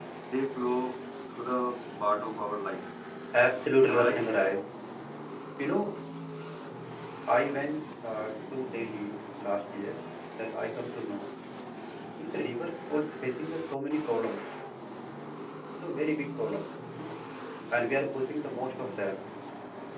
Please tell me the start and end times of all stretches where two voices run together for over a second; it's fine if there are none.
none

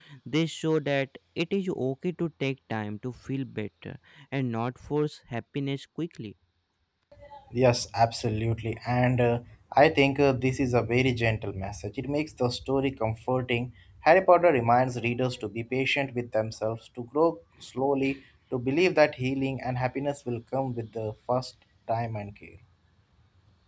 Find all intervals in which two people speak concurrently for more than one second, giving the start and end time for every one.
none

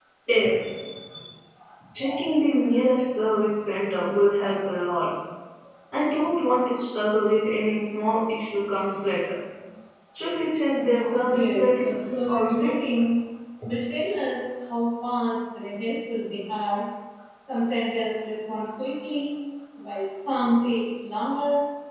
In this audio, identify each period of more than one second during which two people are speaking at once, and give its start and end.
11.3-12.7

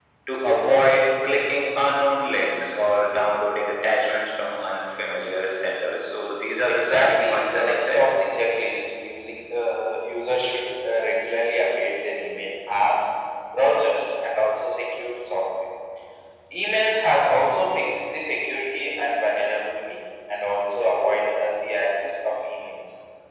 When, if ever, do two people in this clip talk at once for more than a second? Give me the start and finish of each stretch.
6.6-8.0

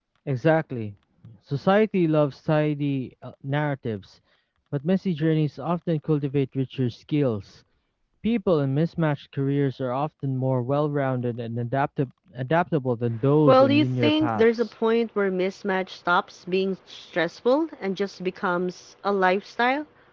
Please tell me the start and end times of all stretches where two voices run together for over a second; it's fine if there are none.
13.5-14.7

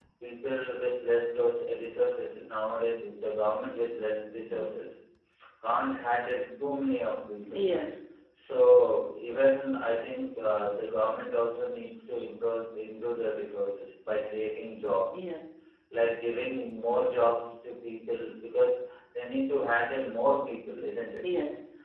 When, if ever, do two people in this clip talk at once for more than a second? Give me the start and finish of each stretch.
none

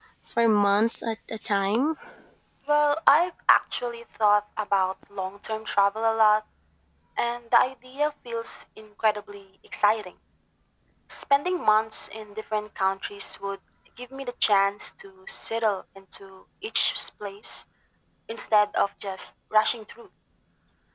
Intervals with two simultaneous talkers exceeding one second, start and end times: none

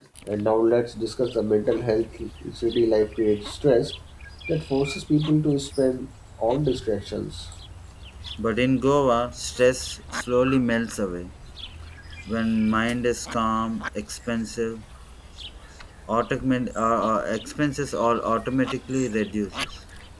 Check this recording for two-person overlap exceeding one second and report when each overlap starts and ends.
none

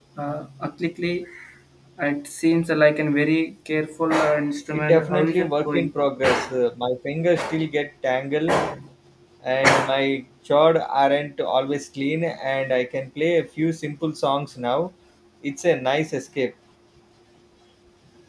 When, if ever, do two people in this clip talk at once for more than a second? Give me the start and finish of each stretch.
4.7-5.9

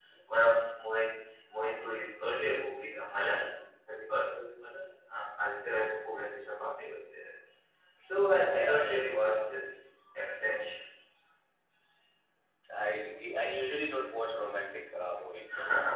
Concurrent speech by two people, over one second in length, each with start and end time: none

